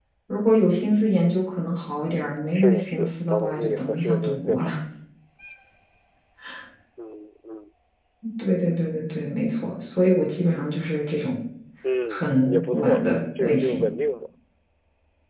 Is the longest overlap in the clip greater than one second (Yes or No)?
Yes